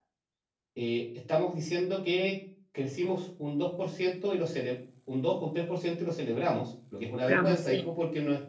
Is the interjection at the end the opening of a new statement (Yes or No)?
No